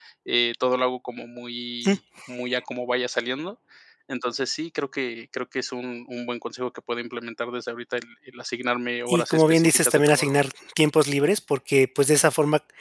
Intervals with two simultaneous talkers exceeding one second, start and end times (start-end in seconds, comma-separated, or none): 9.1-10.4